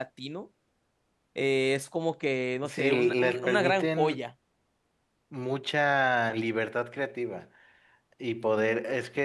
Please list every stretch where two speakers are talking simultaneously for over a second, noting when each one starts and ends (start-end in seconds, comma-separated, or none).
2.6-4.0